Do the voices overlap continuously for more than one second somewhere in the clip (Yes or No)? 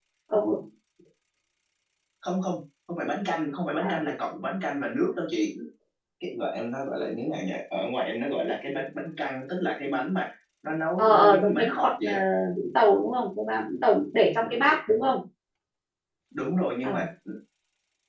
Yes